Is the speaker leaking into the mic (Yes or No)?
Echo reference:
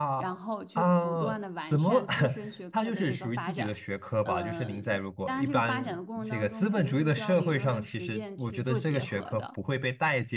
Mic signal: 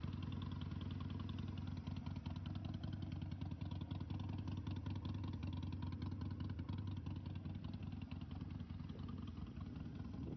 No